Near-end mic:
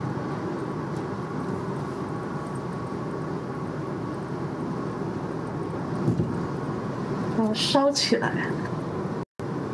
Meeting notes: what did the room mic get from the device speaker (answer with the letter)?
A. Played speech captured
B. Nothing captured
B